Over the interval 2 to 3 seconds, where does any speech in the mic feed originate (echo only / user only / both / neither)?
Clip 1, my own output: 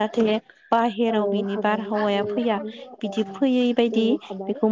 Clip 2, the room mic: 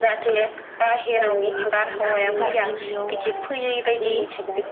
both